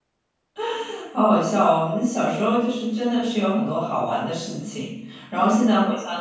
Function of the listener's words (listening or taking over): listening